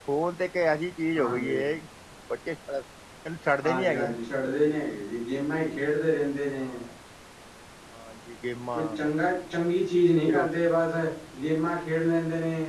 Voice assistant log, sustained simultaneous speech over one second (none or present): none